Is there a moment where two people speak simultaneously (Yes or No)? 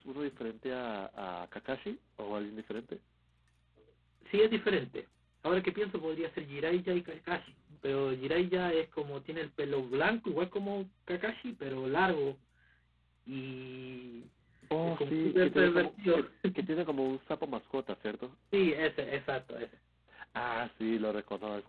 Yes